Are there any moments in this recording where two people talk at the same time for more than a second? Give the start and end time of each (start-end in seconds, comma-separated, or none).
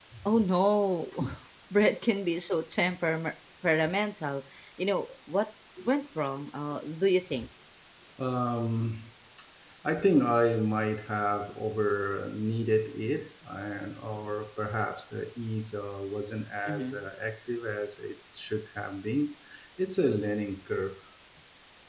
none